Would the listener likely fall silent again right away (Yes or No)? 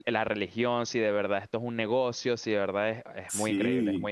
No